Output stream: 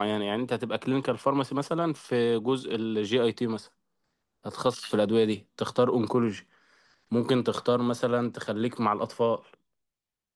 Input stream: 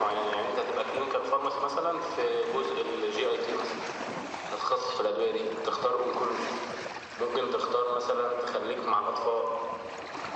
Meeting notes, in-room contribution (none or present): none